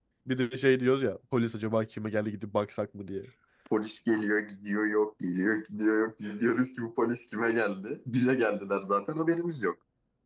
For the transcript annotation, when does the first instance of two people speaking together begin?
none

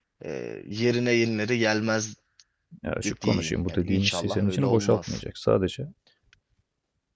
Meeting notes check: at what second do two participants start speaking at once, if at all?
3.0 s

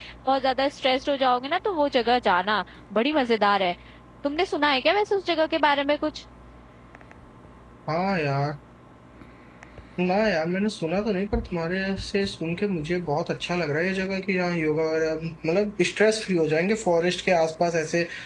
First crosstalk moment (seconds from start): none

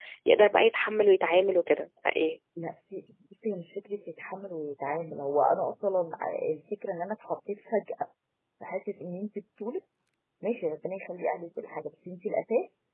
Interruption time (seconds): none

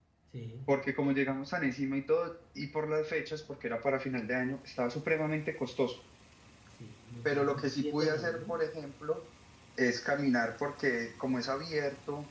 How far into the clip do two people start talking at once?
7.2 s

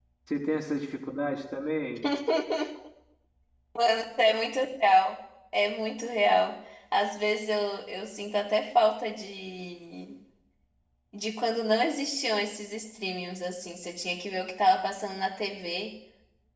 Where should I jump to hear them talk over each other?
none

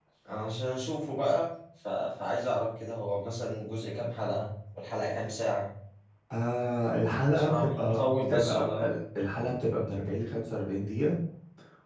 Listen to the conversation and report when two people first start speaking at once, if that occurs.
7.3 s

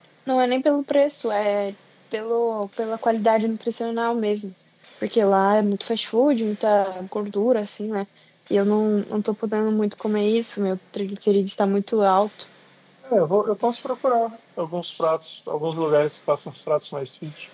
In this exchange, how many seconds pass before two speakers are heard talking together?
none

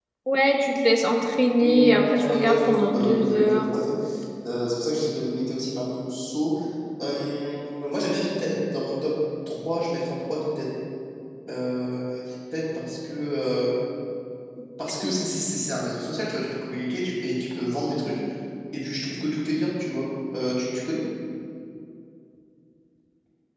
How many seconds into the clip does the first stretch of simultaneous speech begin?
1.6 s

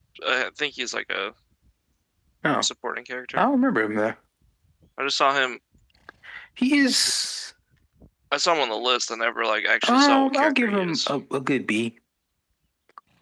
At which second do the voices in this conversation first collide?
9.8 s

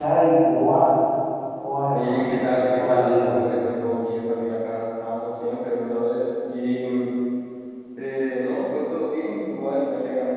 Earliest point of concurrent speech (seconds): 1.9 s

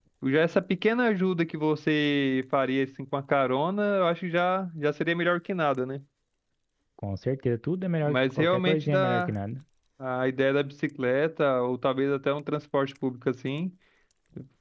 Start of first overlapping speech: 8.0 s

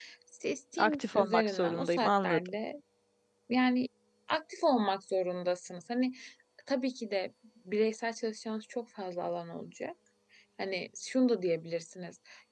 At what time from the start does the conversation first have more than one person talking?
0.8 s

